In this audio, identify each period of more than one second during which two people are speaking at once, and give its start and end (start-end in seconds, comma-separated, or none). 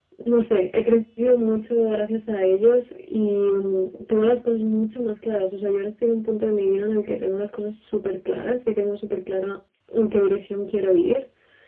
none